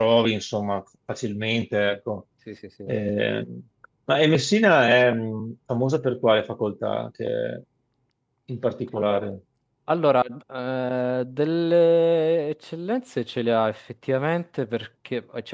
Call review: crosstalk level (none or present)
none